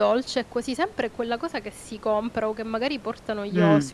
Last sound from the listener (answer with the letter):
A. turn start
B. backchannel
A